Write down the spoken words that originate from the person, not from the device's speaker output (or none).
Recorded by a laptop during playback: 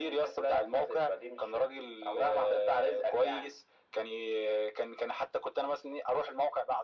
none